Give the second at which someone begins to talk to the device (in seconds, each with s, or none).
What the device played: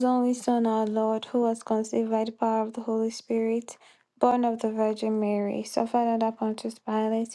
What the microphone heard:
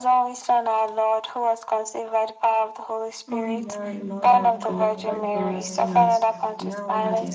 3.3 s